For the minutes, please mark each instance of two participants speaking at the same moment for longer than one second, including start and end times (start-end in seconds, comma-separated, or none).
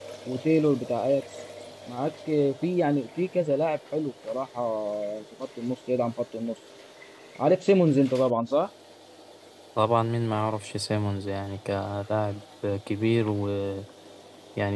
none